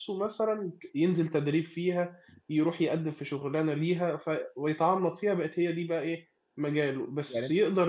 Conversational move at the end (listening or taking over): listening